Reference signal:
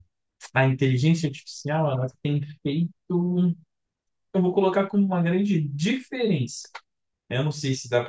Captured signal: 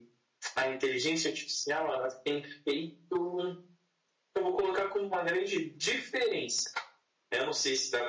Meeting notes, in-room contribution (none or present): none